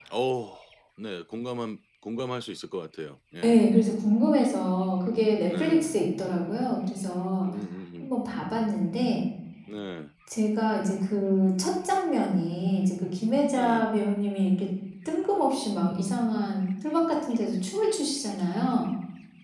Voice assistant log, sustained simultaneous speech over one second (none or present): none